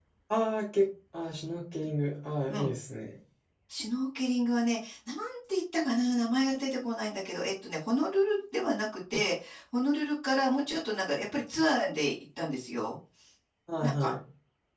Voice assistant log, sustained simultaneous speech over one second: none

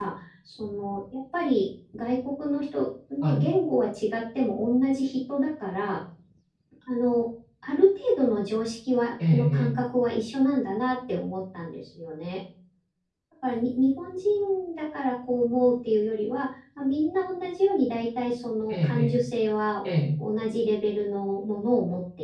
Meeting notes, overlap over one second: none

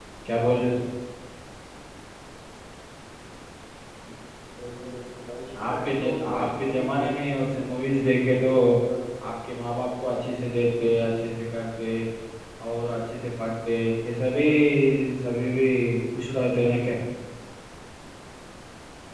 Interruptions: present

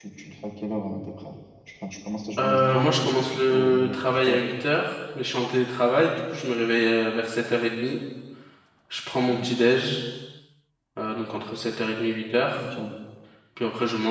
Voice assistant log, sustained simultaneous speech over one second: present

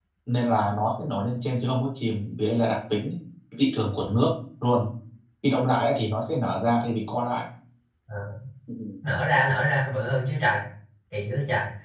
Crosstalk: none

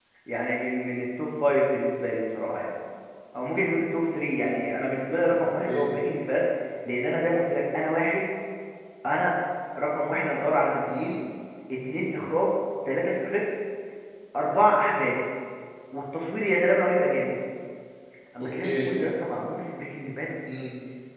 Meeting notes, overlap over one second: none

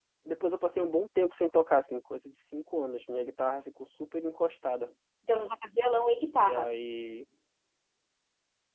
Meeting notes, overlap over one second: none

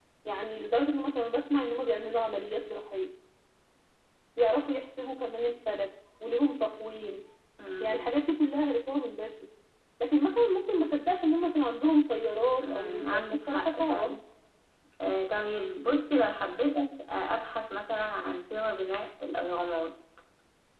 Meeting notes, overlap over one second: present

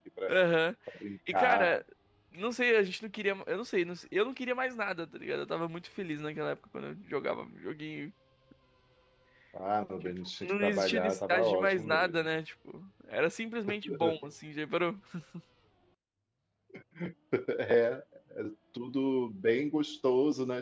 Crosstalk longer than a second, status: present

